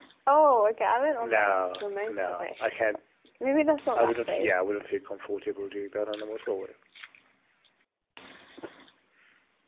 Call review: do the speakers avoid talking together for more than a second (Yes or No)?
No